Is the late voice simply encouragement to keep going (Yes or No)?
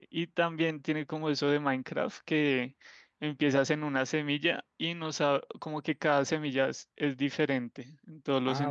No